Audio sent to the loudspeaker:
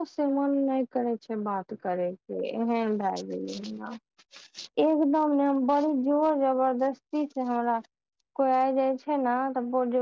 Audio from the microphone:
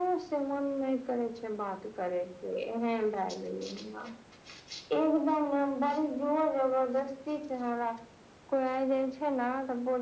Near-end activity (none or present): none